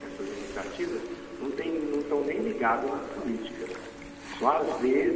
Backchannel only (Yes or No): Yes